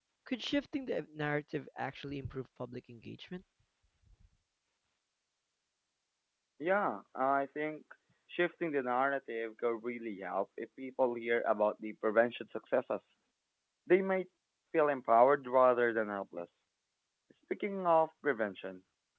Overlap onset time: none

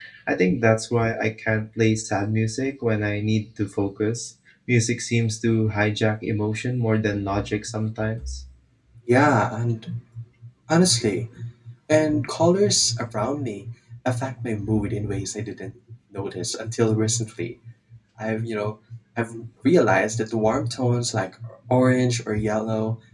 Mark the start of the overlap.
none

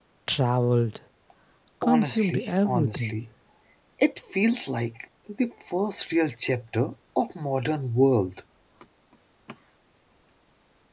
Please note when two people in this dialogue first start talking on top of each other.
1.8 s

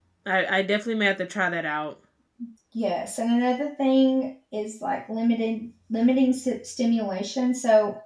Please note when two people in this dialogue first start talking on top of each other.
none

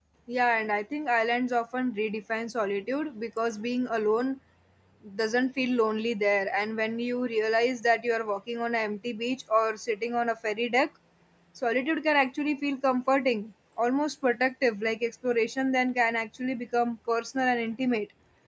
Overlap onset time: none

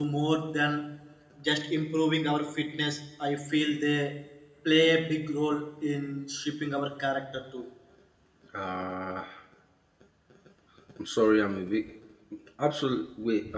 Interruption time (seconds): none

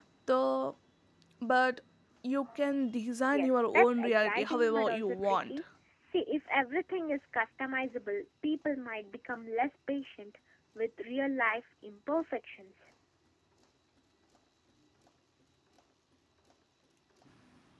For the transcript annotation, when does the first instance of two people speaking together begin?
3.3 s

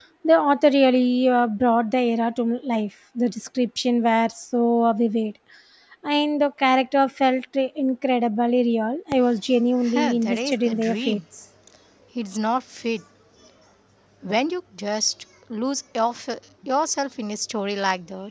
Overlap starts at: 9.8 s

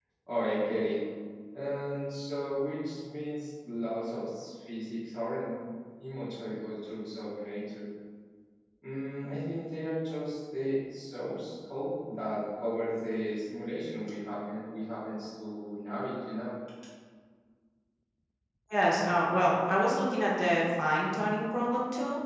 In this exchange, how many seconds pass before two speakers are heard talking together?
none

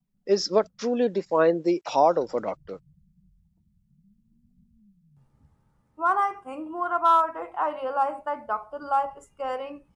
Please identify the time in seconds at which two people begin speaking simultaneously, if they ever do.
none

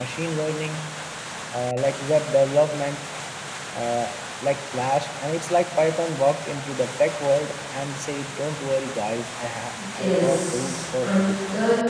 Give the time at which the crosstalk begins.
9.7 s

